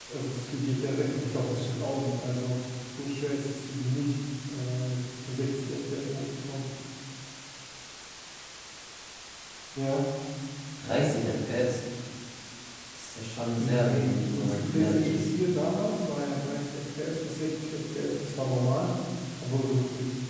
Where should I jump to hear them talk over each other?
13.6 s

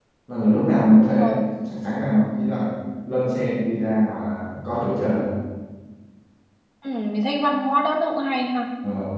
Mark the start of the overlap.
none

